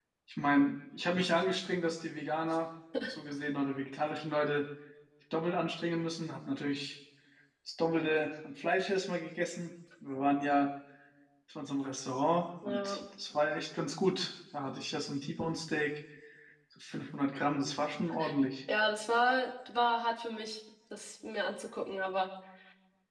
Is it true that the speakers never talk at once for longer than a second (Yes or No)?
Yes